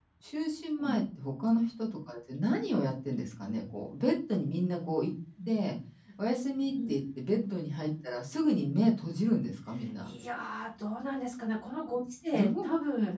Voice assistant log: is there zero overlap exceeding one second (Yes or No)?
Yes